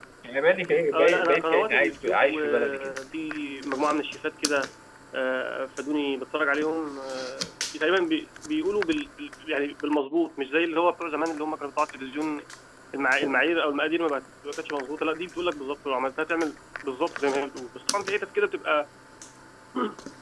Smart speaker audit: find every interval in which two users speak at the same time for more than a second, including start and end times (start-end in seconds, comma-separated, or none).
0.9-3.0